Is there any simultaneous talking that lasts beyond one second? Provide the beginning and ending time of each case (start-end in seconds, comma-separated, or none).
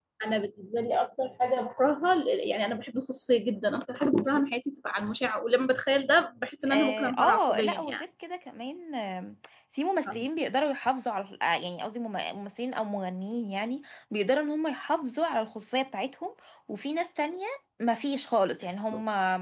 6.7-8.0